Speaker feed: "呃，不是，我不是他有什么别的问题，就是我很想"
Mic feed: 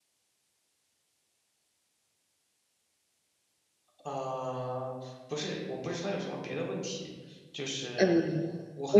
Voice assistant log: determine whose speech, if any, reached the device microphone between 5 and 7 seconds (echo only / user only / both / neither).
echo only